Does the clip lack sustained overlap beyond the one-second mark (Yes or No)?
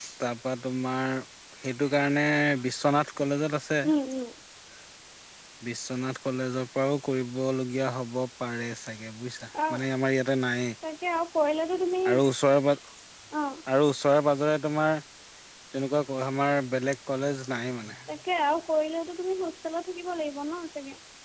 Yes